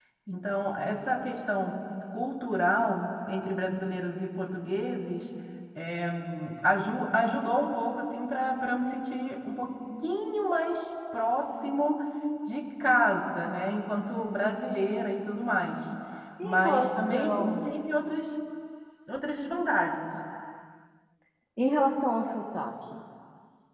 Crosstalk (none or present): present